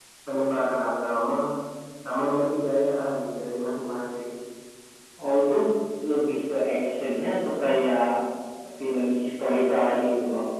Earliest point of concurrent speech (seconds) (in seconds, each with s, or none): none